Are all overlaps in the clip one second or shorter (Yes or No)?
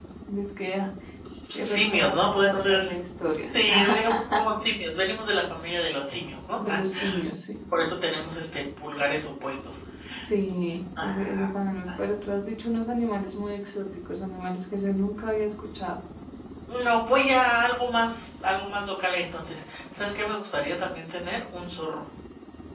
No